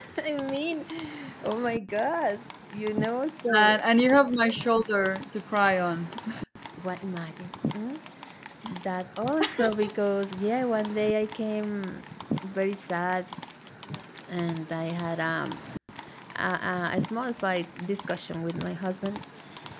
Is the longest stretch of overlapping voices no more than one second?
Yes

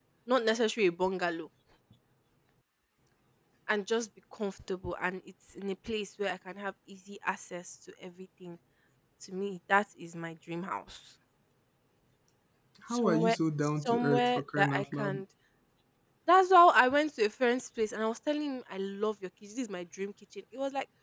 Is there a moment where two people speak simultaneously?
Yes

